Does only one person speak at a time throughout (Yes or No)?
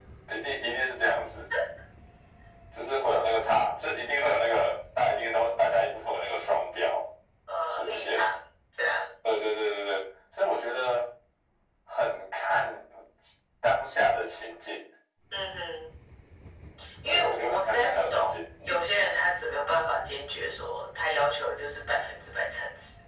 No